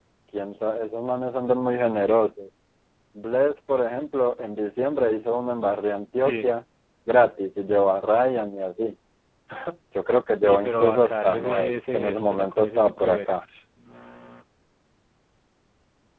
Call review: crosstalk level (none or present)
present